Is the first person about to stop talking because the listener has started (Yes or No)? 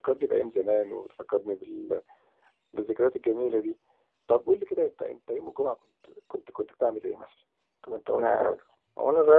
Yes